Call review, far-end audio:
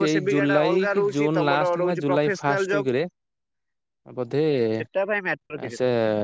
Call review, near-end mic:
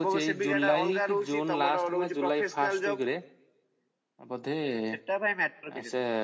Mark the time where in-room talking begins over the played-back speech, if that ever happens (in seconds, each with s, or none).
none